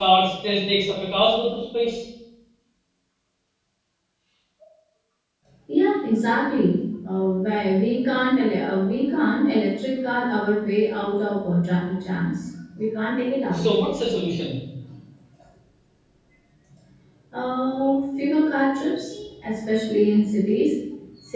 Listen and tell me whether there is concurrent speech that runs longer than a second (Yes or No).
No